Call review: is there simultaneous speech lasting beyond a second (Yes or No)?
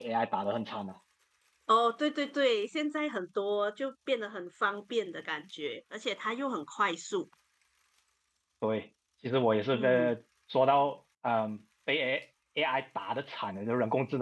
No